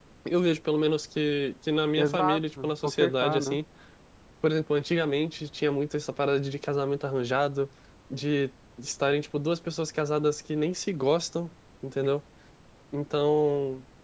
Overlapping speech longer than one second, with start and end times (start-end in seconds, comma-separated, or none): 2.0-3.6